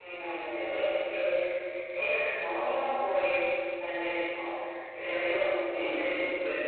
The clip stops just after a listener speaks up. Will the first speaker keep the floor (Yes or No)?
No